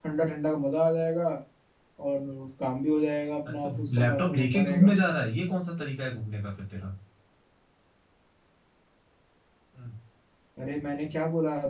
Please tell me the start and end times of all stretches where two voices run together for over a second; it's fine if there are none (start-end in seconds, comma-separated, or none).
3.5-4.9